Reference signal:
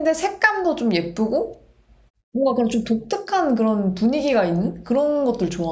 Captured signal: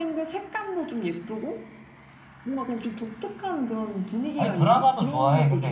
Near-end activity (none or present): present